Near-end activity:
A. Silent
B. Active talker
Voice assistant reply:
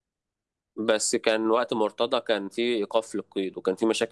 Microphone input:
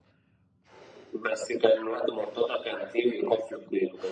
A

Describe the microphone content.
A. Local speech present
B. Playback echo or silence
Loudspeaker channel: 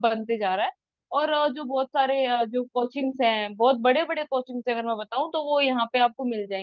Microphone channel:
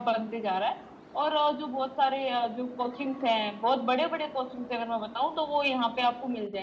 B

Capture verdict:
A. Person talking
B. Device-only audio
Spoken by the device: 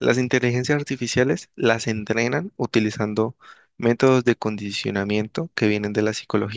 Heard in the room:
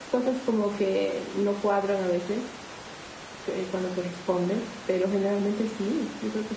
A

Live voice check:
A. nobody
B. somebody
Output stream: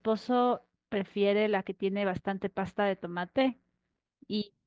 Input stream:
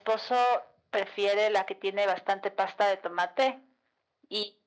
A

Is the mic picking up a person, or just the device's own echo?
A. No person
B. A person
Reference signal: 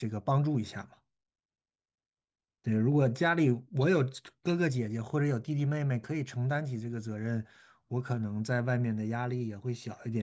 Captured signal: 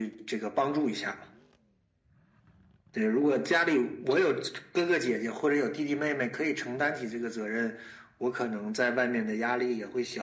A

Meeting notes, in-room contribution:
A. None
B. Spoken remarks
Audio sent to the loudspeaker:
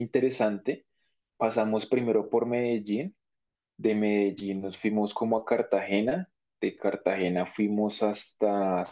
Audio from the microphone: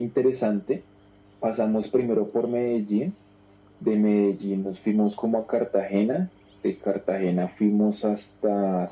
A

